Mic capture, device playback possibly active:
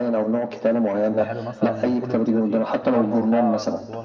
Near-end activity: present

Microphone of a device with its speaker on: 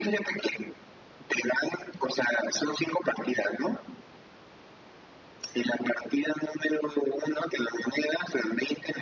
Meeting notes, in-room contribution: none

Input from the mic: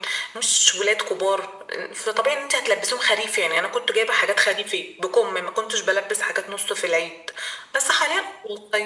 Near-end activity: none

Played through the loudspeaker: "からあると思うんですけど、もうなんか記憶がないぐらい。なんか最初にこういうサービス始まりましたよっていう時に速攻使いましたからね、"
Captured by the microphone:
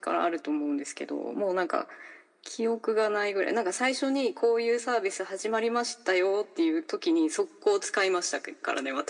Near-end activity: none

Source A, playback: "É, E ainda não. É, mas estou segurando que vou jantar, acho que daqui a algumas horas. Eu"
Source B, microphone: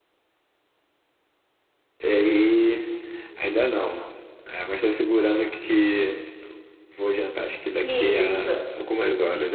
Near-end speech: present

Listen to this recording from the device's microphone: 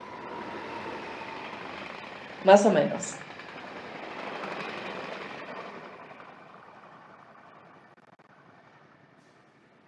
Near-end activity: present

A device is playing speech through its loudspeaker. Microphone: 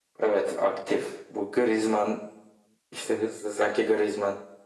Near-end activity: none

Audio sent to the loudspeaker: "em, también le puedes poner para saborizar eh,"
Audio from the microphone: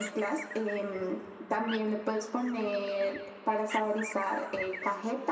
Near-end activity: none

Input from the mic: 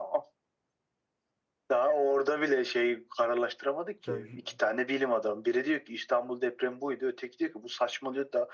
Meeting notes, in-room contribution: present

